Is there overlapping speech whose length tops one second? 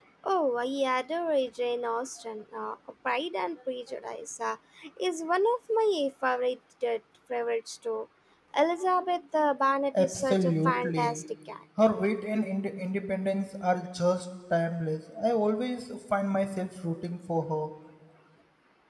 Yes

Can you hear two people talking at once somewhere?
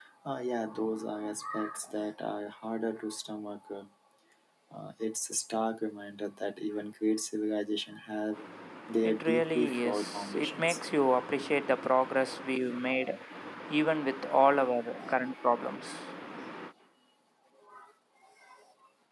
Yes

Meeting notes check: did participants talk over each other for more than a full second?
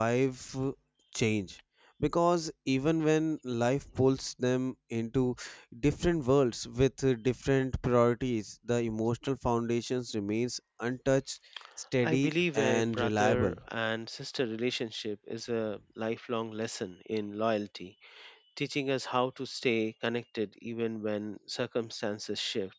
Yes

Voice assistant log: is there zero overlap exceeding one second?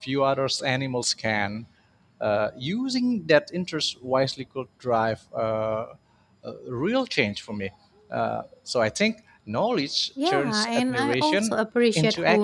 No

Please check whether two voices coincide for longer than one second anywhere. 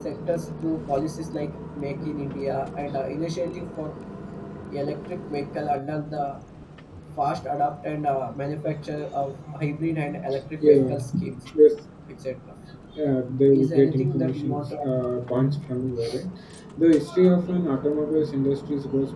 Yes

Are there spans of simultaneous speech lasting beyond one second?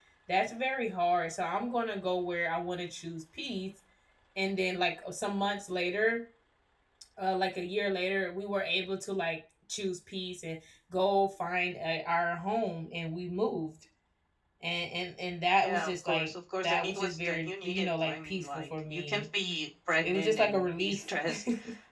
Yes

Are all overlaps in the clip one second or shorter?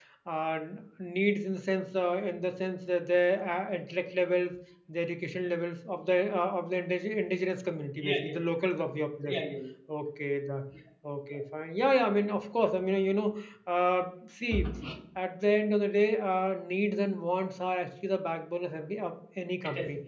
Yes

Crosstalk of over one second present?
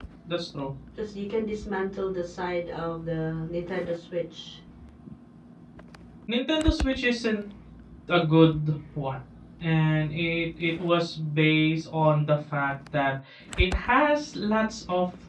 No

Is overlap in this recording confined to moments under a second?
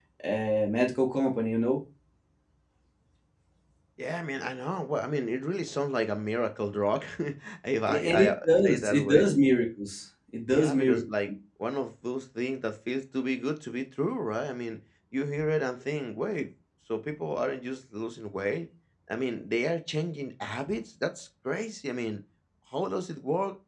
No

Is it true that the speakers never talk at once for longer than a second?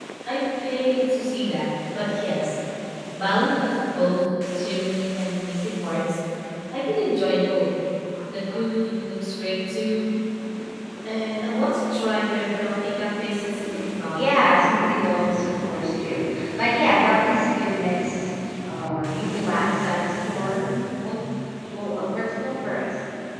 Yes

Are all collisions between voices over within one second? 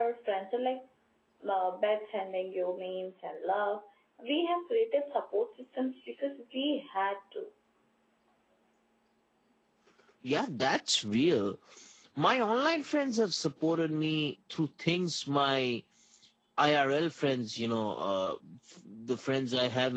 Yes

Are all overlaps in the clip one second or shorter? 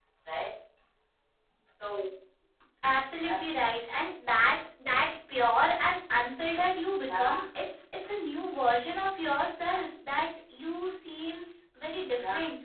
Yes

